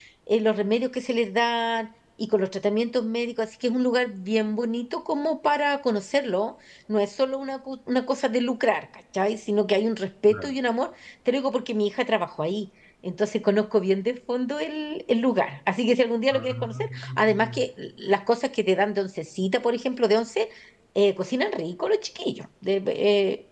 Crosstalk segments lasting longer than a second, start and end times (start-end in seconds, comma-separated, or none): 16.3-17.6